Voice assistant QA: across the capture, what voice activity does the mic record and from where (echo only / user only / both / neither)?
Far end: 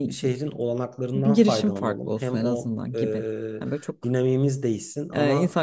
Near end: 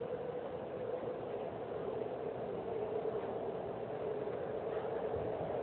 neither